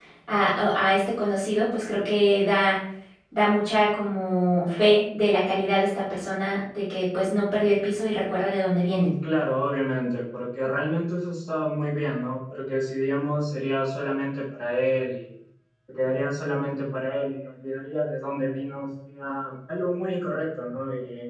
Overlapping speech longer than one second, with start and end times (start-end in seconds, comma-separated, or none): none